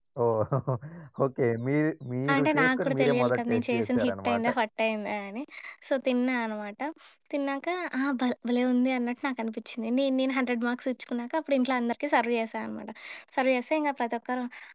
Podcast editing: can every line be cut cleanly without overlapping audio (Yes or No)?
No